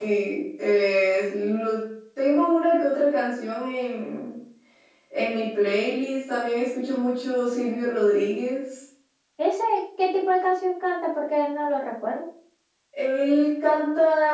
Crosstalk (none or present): none